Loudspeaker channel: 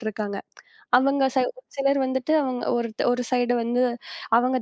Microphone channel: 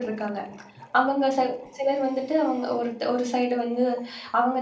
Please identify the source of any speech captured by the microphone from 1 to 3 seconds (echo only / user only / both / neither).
echo only